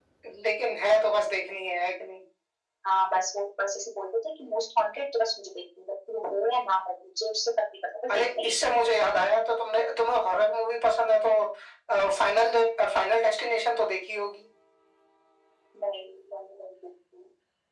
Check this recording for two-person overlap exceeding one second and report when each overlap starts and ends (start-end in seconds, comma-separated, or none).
none